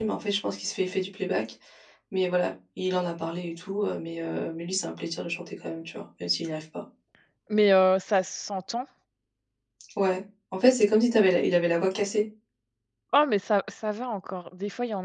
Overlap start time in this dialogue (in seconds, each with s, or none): none